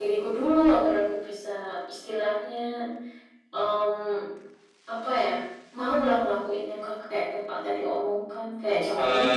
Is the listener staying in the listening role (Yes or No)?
No